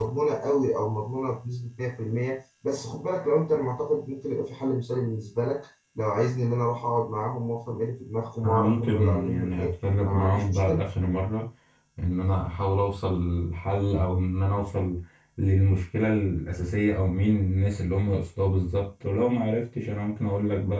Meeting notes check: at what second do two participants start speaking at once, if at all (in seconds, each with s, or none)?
8.4 s